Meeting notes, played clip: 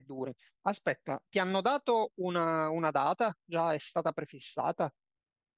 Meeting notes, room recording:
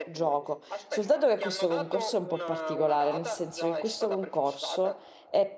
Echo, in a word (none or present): present